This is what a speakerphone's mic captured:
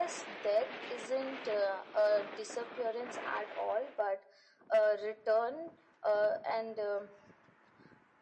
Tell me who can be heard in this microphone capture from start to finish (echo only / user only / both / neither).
echo only